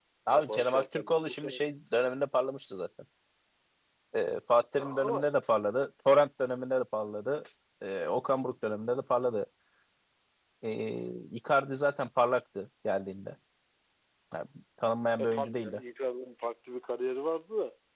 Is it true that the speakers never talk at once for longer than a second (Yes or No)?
No